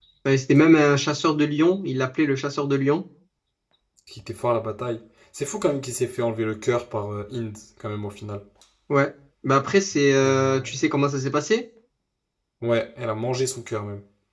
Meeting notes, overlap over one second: none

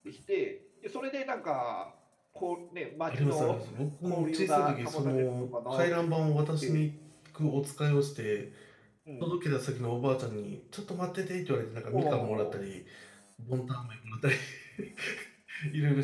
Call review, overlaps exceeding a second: present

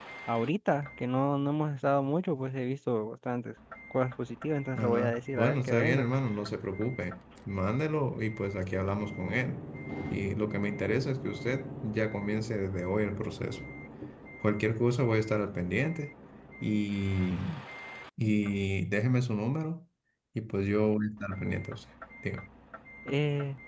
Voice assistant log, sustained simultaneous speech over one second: present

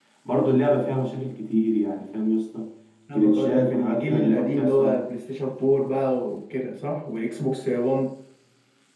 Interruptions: present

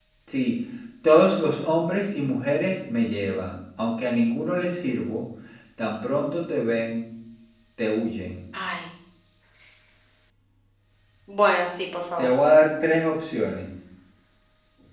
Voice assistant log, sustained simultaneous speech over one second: none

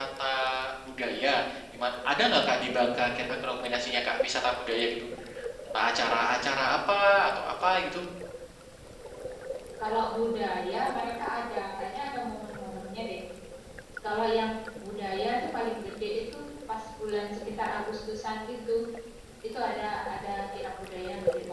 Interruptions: none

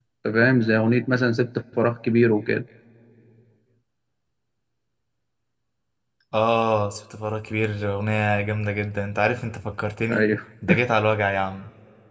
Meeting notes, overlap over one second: none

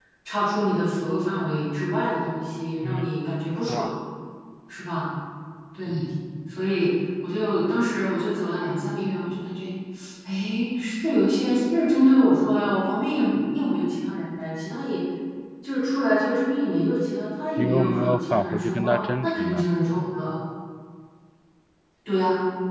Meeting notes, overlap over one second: present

